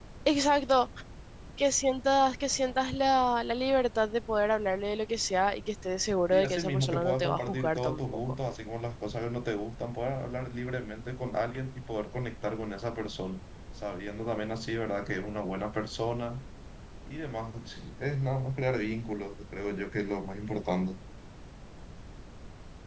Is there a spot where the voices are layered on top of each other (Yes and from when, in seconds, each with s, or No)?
Yes, from 6.3 s